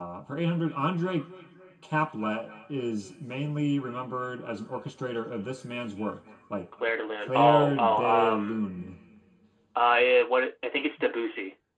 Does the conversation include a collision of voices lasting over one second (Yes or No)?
Yes